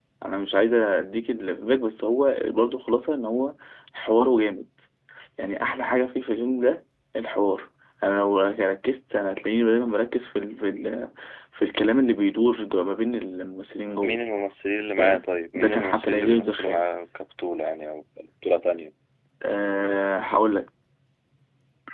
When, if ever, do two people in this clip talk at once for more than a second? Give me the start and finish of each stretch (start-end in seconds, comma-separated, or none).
15.0-16.9